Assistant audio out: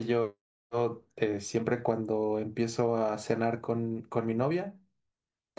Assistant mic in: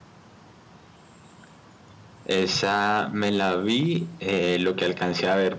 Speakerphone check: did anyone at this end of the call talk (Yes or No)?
Yes